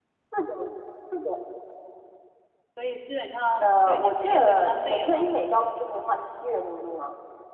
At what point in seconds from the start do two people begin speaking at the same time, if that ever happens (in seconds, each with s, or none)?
3.6 s